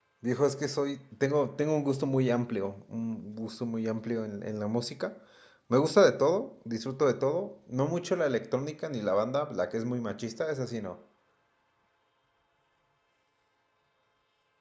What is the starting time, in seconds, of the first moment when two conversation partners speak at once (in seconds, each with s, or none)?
none